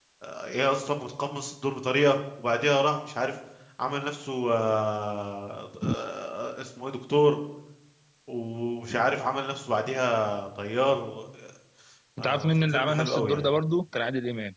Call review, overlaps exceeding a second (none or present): present